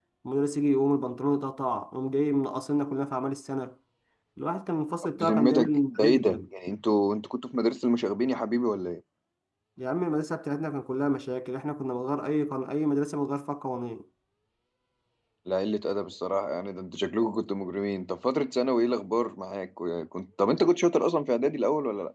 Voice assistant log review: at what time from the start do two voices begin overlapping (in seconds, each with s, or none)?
5.2 s